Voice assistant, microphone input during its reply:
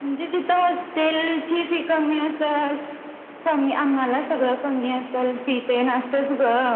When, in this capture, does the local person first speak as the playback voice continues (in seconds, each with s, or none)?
none